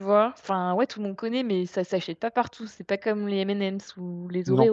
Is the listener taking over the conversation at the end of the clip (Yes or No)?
Yes